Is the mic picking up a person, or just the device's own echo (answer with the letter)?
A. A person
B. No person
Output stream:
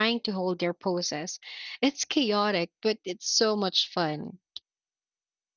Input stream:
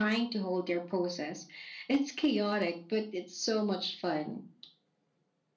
B